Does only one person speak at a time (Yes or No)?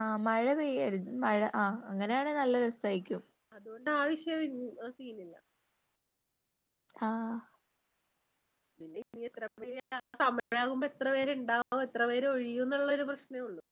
Yes